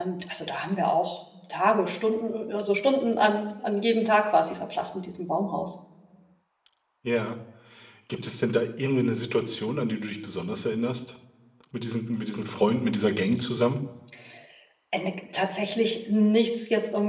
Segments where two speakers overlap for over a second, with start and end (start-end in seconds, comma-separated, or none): none